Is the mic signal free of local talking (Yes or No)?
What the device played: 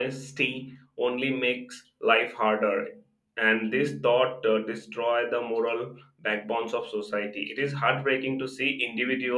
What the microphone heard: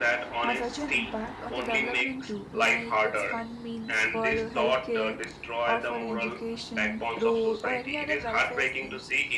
No